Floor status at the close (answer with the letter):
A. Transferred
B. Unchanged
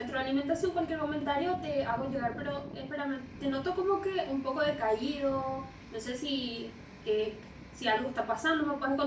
B